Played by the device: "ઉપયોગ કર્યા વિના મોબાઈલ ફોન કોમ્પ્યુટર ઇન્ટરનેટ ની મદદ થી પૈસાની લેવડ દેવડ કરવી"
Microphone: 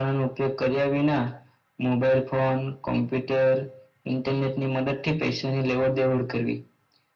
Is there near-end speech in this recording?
No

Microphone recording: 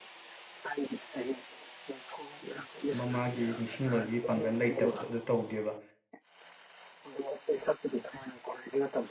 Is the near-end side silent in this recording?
No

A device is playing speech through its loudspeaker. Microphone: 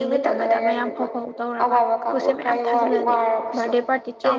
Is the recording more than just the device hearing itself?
Yes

